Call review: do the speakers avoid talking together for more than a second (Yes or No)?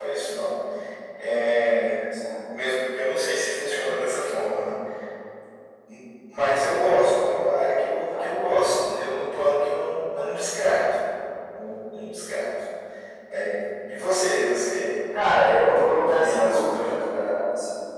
No